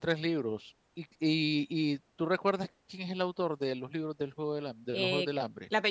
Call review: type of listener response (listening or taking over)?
taking over